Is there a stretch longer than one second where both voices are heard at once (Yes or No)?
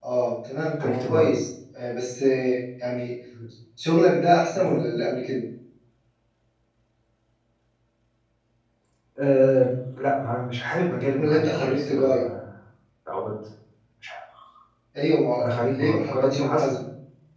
Yes